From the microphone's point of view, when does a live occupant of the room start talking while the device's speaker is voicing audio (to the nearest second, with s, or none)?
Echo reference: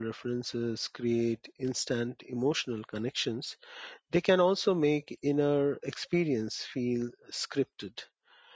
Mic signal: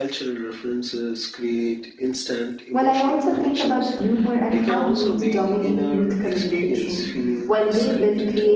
3 s